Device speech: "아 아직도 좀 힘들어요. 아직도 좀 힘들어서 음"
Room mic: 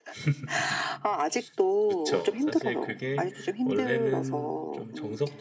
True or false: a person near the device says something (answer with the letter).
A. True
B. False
A